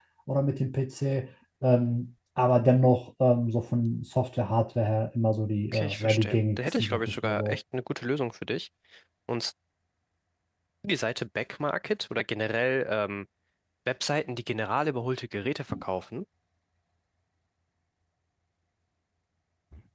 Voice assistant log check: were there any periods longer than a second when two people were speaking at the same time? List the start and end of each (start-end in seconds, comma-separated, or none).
5.7-7.6